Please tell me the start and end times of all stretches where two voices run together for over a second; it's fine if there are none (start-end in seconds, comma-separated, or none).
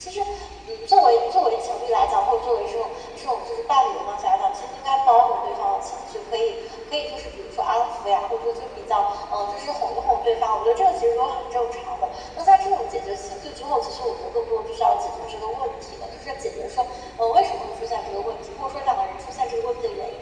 none